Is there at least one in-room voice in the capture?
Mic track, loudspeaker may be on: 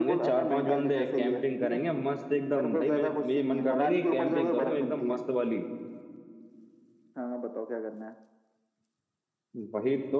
Yes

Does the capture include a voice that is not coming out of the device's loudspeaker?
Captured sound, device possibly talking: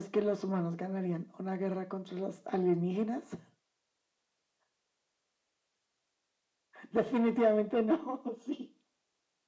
No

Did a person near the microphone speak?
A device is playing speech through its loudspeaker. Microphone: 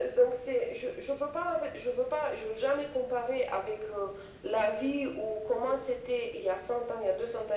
No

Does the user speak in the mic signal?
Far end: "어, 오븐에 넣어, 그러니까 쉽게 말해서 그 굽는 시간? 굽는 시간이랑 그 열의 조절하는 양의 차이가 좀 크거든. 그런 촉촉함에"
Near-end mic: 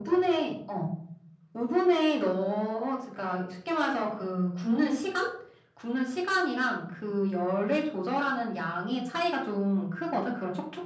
No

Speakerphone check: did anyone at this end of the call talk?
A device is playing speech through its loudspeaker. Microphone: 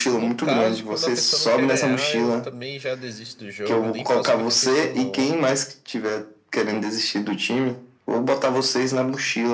Yes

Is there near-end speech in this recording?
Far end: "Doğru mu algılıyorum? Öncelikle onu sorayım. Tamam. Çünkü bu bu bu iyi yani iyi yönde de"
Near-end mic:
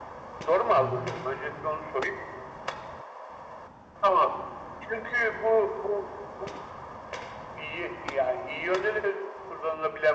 Yes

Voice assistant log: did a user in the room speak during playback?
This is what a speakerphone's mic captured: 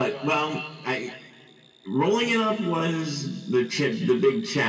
No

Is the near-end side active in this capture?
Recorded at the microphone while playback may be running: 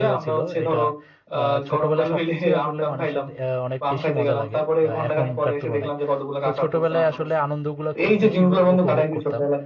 Yes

